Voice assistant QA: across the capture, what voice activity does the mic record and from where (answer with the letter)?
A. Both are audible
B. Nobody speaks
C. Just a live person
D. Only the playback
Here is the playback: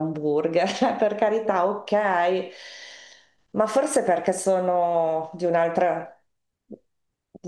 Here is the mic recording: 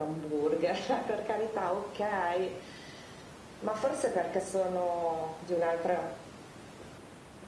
D